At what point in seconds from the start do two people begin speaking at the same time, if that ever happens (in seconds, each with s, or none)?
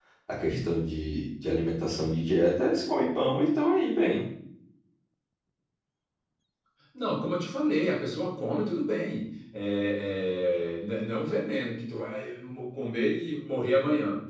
none